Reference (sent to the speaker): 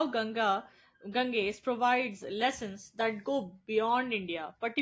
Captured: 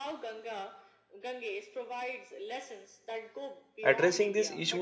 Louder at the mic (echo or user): user